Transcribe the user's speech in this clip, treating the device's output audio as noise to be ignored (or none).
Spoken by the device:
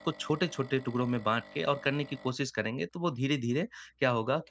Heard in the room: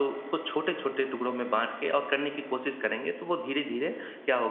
none